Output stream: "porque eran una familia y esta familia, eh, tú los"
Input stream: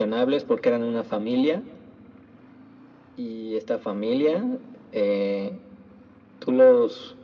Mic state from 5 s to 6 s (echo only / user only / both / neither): echo only